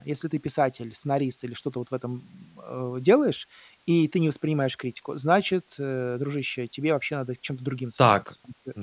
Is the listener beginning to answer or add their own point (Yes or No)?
Yes